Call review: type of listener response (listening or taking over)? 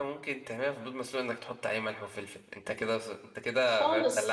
taking over